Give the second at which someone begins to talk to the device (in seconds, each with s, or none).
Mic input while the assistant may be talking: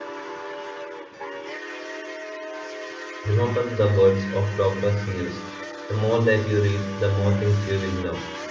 3.2 s